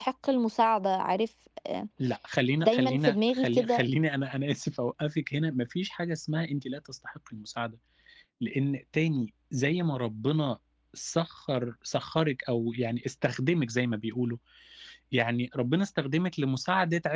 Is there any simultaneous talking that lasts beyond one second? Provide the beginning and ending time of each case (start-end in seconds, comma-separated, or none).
2.6-3.8